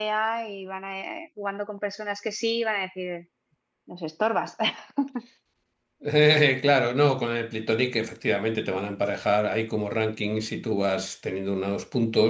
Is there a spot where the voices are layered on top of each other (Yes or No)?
No